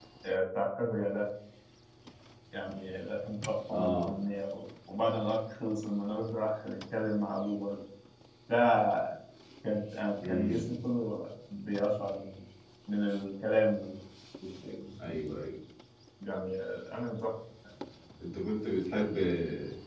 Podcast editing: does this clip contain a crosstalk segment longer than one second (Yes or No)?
No